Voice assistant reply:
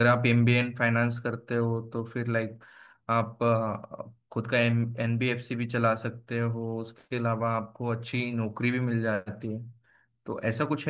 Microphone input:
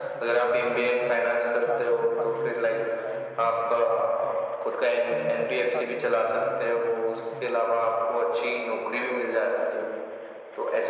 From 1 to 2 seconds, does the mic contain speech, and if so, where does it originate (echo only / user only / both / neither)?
both